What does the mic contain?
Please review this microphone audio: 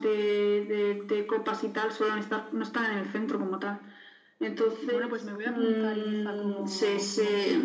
both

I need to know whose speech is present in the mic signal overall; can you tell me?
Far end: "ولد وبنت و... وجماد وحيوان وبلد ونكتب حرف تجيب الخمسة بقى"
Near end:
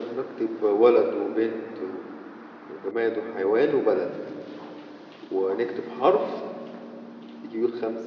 echo only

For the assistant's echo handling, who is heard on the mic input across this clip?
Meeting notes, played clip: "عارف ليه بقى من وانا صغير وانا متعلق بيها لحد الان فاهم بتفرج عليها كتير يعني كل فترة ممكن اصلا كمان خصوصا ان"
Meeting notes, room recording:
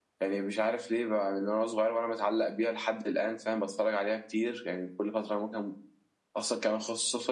echo only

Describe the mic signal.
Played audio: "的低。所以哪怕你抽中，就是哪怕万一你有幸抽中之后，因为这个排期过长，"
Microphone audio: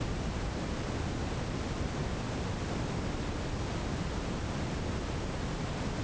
neither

